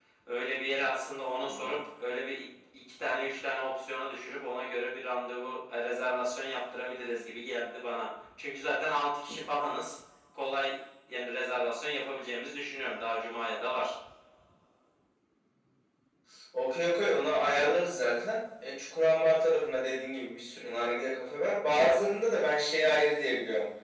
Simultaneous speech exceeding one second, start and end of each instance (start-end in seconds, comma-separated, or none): none